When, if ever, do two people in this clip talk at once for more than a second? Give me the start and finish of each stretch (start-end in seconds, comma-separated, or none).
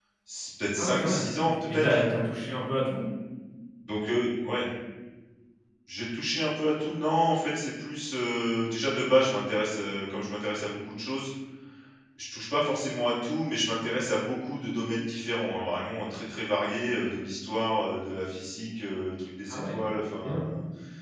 none